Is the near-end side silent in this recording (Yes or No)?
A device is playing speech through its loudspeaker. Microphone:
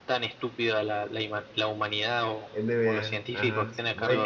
No